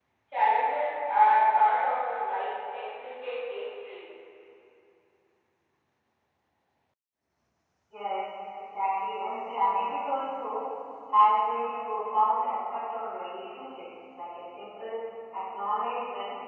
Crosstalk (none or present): none